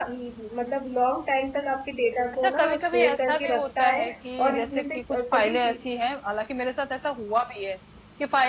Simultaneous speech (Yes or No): Yes